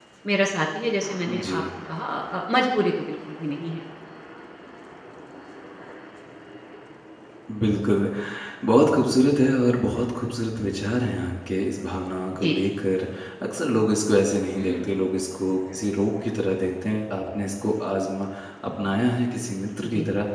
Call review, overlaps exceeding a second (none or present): none